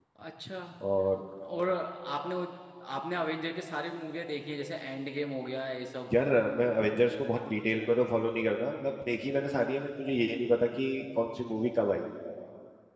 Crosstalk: none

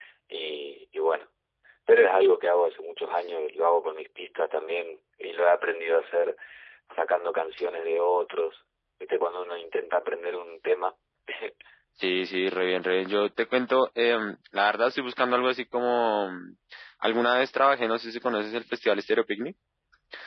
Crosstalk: none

